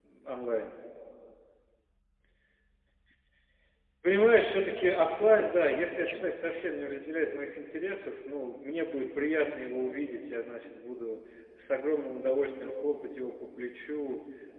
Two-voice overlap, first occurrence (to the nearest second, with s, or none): 5 s